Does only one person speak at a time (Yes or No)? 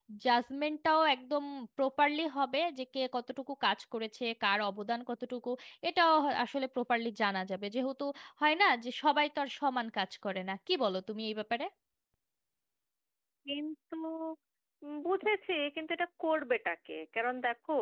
Yes